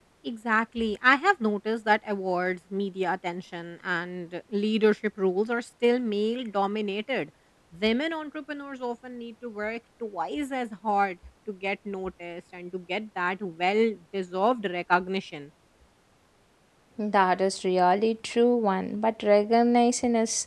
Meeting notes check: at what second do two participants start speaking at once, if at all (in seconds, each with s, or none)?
none